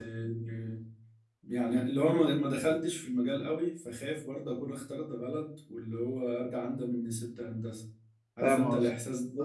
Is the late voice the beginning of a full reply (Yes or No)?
Yes